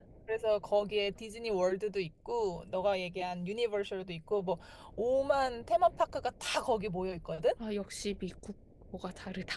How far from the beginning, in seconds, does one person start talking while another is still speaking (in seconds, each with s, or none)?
none